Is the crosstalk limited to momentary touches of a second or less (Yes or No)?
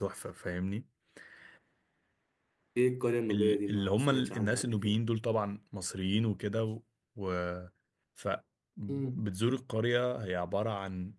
No